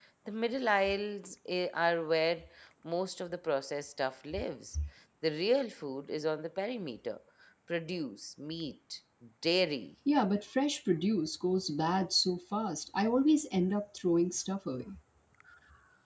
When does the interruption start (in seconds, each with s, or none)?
none